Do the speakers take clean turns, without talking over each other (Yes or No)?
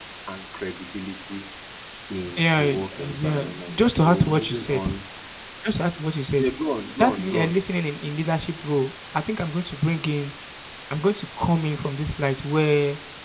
No